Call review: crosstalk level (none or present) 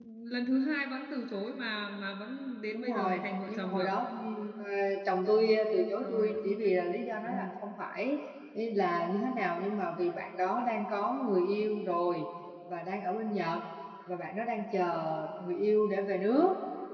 present